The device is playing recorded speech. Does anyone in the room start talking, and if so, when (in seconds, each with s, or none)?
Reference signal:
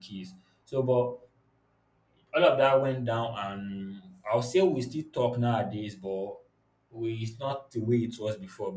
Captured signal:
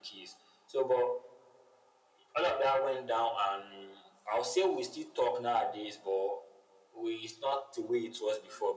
none